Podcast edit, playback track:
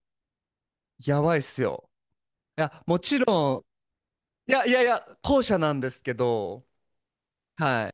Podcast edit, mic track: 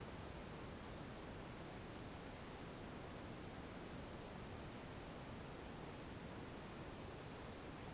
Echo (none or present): none